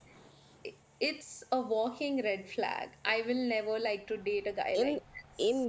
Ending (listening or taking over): taking over